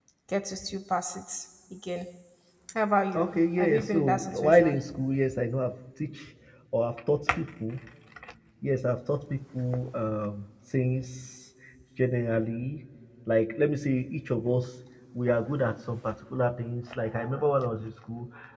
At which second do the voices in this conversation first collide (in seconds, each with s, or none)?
3.1 s